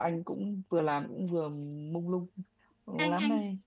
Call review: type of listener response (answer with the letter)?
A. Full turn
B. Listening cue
A